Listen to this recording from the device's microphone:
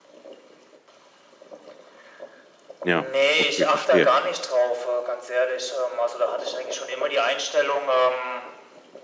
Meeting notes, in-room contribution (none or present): present